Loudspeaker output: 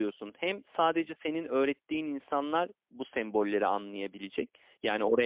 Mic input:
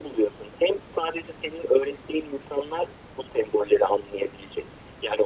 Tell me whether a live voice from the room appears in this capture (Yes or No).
No